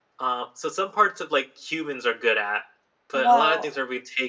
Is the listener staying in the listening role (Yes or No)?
Yes